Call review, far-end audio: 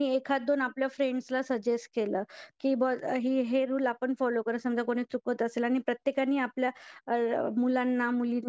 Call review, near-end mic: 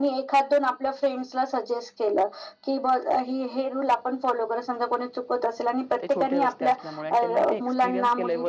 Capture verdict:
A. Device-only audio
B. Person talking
B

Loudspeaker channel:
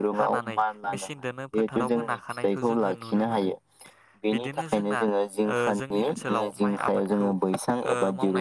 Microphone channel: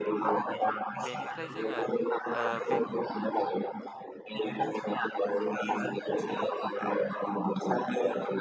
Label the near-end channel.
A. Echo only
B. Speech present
B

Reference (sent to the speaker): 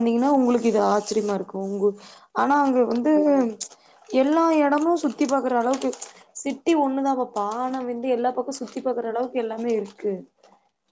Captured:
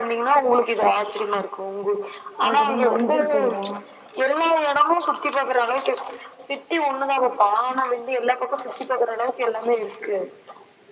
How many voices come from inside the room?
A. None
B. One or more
B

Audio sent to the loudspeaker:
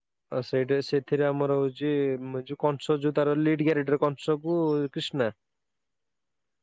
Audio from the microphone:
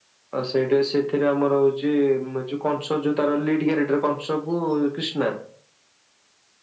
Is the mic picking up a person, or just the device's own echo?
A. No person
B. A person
A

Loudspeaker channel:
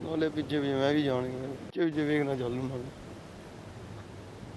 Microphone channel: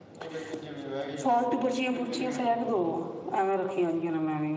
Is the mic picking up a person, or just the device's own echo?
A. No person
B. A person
B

